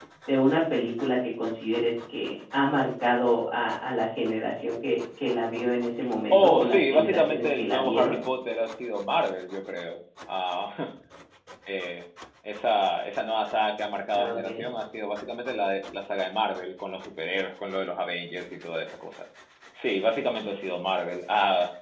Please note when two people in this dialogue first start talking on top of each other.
6.3 s

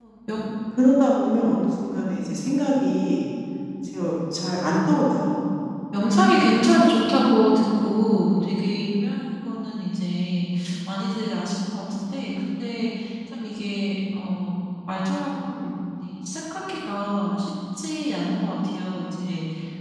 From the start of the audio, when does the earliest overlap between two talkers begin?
none

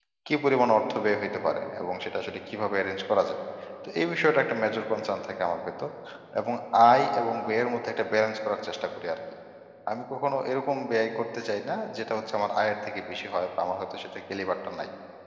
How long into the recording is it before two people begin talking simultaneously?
none

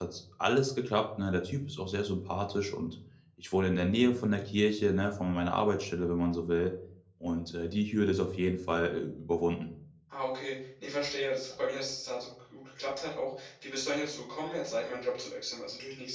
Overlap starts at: none

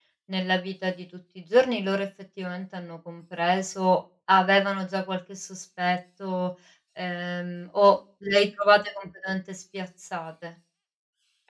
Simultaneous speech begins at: none

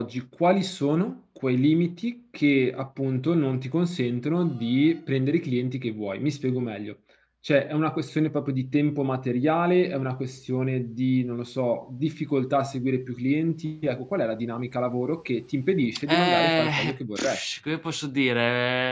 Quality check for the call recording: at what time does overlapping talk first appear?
16.1 s

